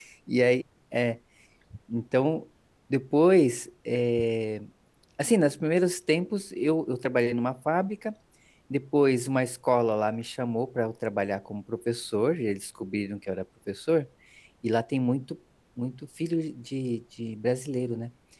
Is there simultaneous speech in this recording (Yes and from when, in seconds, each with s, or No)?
No